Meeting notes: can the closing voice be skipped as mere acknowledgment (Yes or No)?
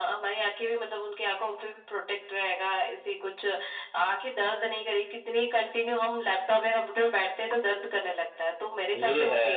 No